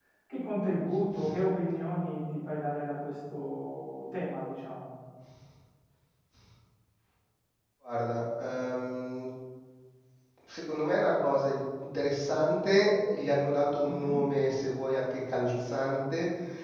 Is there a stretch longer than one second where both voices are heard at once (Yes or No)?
No